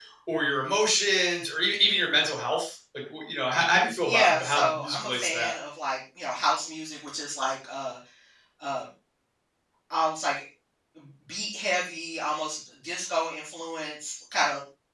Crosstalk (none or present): present